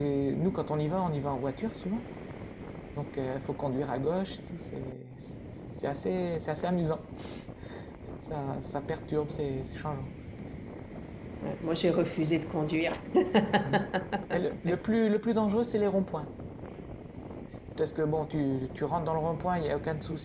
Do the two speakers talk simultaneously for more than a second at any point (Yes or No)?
No